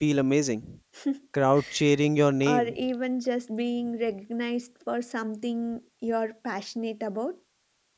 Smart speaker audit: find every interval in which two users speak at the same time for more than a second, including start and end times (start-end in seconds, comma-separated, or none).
none